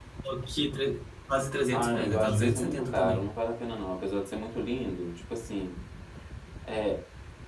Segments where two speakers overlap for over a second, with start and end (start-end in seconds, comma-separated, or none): 1.7-3.3